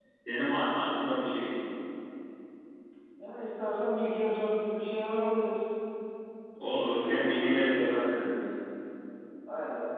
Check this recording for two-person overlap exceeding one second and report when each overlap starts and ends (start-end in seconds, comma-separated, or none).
6.7-7.9